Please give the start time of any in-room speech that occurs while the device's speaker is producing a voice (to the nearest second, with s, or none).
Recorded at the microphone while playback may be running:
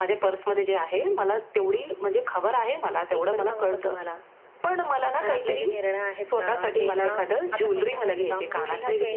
none